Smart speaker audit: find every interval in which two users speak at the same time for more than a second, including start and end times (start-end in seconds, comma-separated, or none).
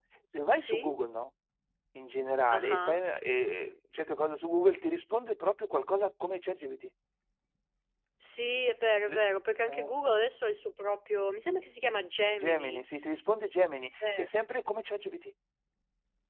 none